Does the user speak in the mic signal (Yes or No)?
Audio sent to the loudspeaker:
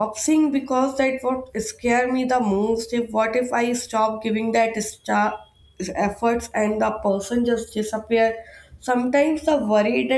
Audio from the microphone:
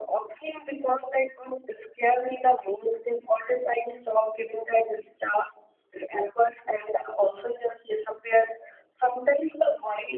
No